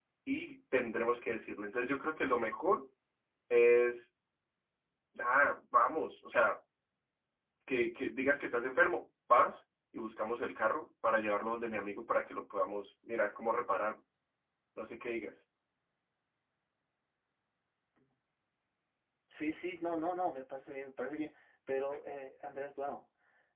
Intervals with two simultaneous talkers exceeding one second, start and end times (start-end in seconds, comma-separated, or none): none